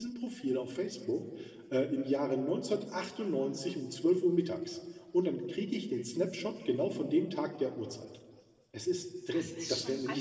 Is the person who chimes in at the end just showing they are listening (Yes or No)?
No